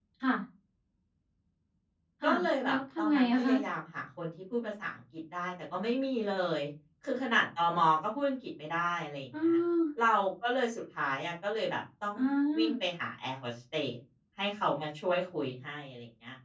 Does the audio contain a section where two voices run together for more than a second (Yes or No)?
Yes